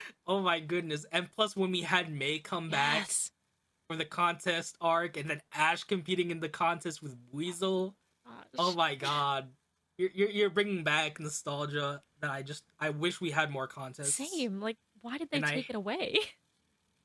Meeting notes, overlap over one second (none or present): none